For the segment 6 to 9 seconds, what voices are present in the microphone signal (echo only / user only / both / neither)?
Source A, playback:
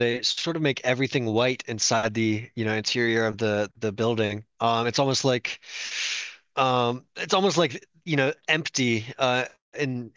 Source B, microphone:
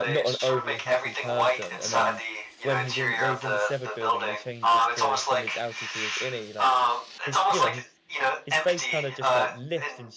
both